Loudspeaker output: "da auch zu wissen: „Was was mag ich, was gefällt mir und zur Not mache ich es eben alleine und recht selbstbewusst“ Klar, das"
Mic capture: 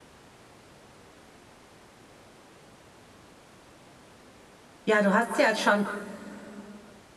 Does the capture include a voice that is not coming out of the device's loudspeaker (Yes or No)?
Yes